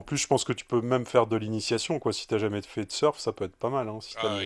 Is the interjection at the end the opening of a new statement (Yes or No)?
Yes